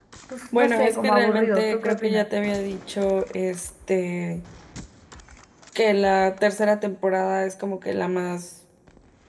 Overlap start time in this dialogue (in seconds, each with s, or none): 0.5 s